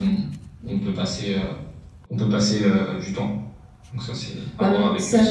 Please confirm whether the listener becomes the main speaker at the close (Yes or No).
Yes